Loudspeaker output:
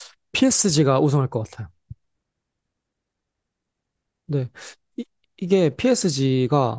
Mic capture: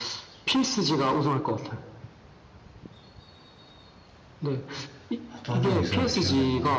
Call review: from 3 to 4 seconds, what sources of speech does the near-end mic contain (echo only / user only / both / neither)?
neither